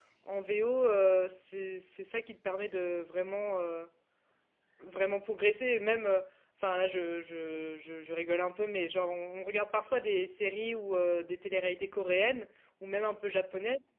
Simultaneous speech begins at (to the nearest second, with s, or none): none